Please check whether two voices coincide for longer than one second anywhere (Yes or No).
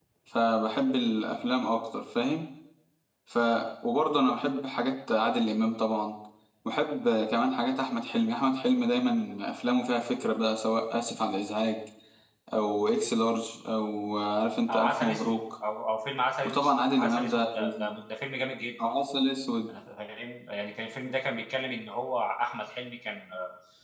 Yes